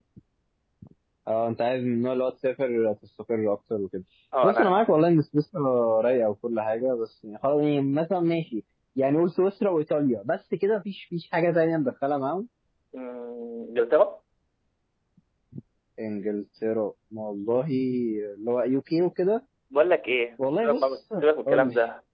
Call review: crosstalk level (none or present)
present